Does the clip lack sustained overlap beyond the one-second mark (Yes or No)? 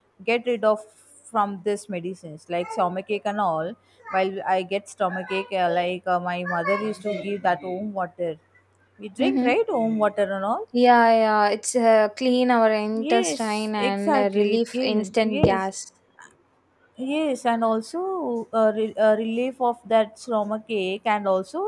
No